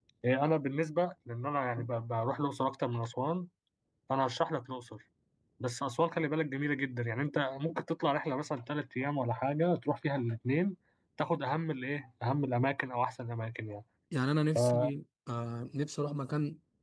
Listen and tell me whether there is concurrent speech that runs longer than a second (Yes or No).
No